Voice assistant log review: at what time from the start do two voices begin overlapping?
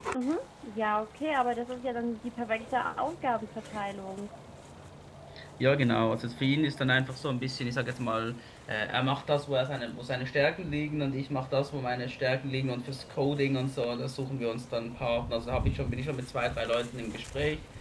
none

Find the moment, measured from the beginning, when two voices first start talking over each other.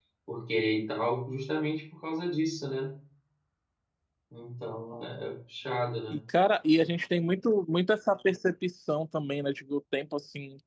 none

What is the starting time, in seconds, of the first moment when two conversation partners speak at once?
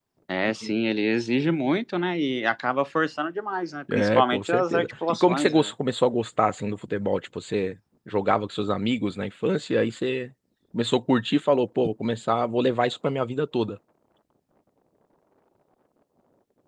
3.9 s

